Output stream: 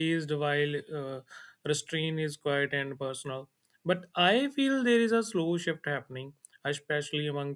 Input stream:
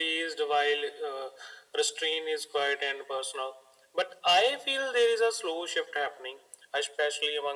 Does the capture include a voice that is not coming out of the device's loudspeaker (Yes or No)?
No